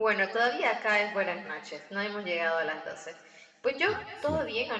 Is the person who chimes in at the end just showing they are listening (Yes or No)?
Yes